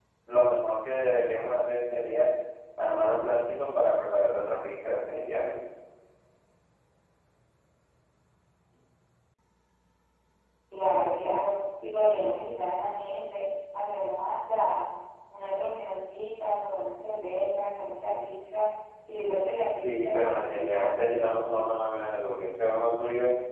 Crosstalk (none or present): present